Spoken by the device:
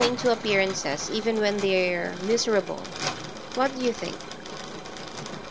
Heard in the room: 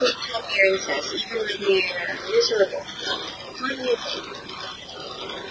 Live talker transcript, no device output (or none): none